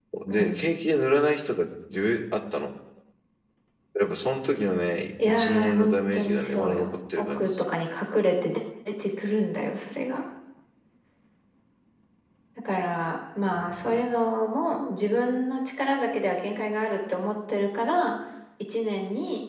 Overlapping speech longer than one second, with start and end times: 5.2-7.6

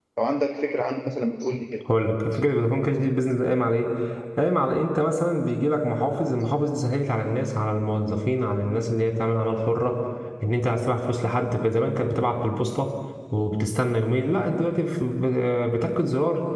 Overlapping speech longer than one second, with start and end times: none

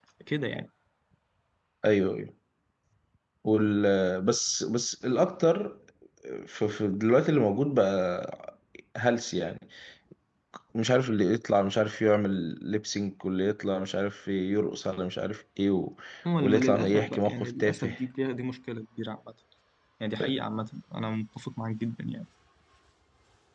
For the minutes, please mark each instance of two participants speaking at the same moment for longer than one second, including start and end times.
16.4-17.9

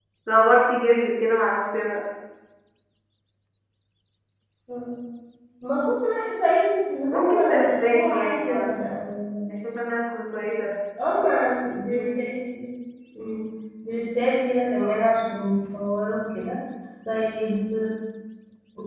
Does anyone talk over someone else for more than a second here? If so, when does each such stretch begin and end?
7.1-8.8

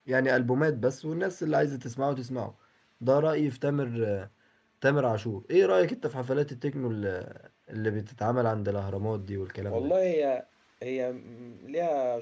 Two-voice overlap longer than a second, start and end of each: none

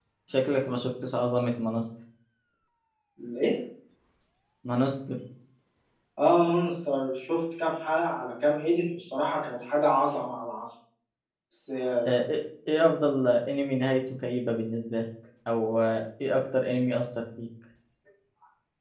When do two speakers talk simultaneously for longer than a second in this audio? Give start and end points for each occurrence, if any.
none

